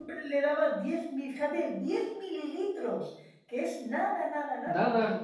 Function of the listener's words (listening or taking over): listening